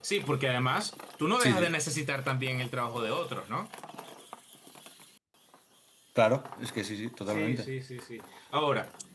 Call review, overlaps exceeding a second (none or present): none